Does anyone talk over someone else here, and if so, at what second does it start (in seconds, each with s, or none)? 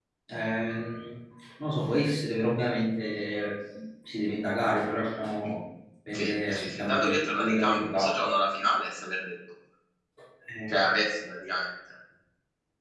6.1 s